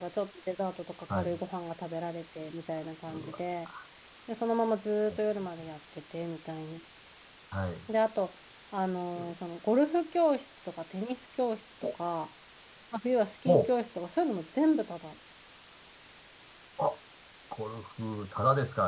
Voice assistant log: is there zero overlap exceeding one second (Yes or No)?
Yes